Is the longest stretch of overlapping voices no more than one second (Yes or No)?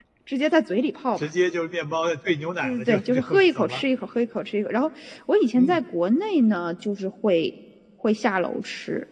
No